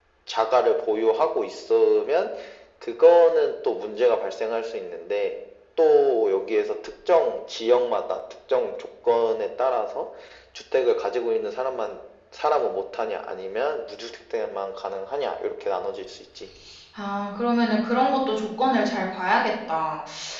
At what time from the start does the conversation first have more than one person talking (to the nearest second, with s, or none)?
none